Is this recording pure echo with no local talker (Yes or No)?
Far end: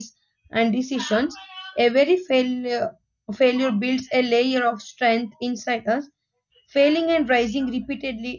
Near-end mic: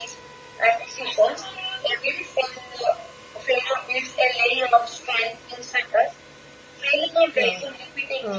No